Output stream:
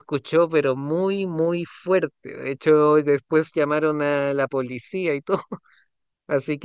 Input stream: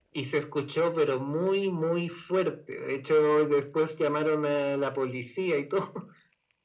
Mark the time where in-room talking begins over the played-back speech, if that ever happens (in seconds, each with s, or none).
none